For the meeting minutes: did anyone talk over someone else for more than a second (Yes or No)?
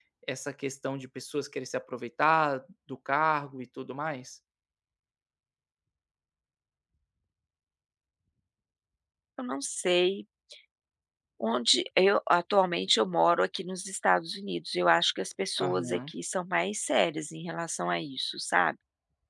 No